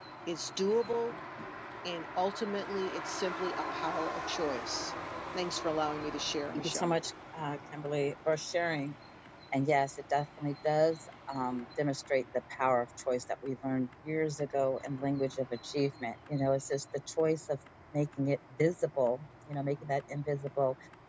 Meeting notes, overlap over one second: none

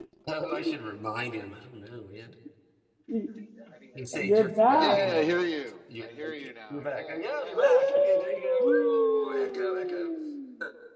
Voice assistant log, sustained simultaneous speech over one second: present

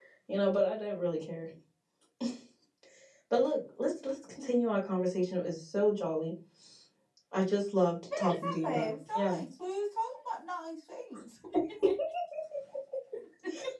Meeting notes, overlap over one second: present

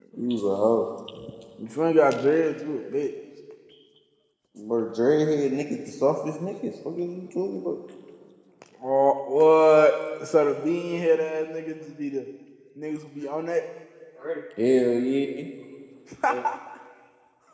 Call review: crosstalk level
none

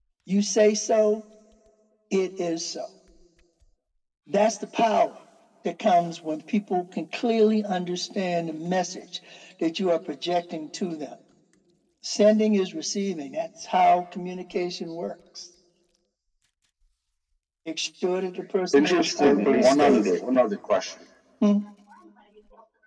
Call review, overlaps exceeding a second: present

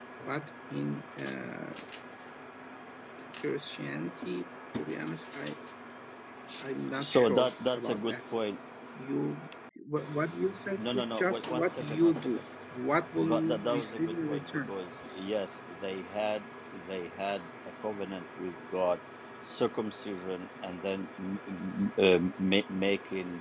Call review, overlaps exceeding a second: present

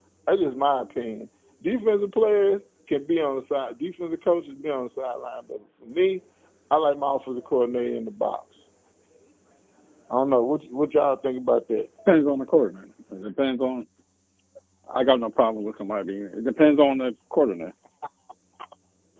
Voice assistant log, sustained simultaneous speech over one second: none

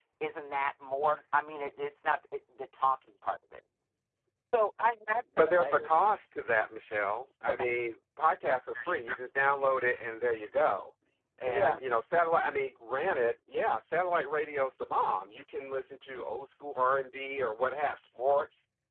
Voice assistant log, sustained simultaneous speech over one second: none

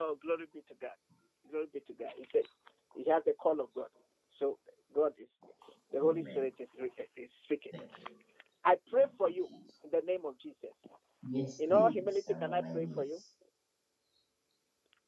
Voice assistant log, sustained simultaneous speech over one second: present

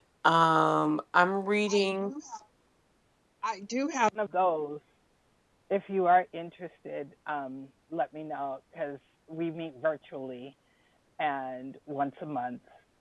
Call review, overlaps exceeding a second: none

